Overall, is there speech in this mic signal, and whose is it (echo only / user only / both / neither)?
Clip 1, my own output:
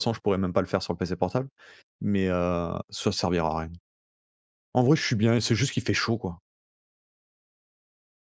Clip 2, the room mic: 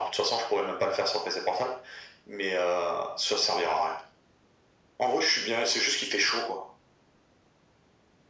echo only